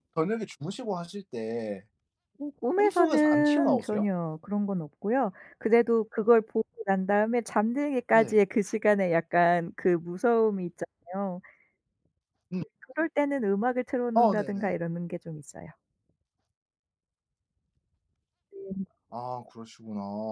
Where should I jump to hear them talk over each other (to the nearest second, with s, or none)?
3 s